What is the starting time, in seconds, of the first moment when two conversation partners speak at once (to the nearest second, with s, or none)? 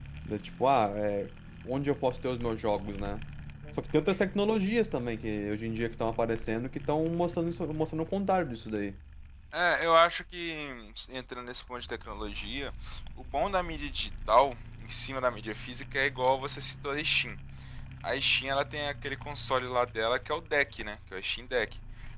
none